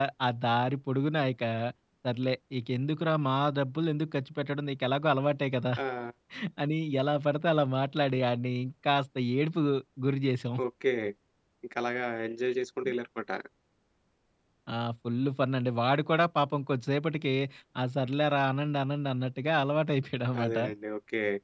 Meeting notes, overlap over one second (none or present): none